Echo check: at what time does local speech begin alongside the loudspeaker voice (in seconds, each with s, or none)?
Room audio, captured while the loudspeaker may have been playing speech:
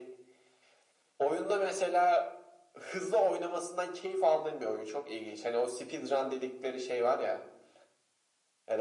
none